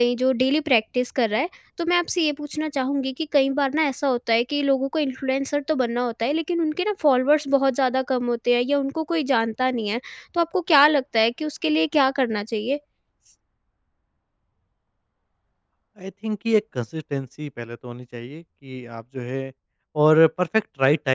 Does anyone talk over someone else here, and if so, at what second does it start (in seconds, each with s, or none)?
none